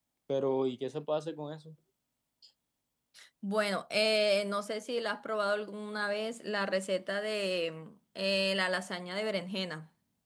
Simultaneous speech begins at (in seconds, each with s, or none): none